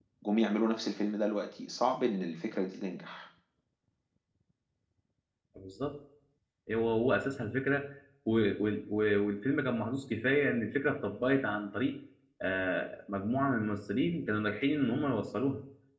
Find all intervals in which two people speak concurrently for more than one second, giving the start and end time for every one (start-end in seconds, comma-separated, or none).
none